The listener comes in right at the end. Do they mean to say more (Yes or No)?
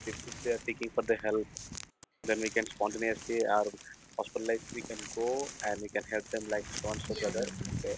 Yes